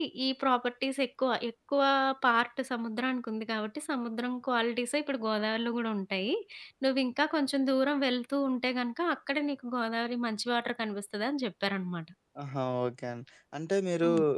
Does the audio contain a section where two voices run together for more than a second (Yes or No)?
No